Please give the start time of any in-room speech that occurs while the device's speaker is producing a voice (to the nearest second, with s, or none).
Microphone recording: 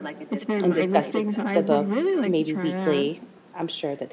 1 s